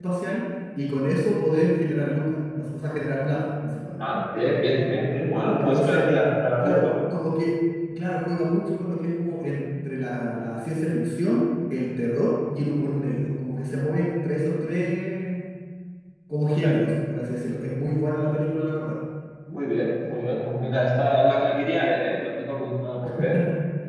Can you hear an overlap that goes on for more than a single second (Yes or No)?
No